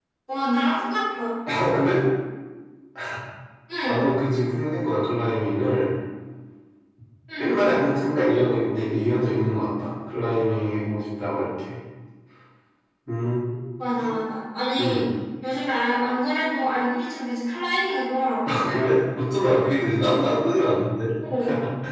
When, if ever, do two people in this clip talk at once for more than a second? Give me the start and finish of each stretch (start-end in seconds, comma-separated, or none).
none